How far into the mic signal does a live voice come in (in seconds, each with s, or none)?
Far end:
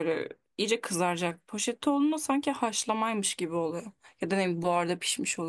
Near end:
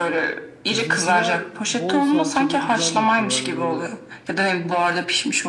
0.7 s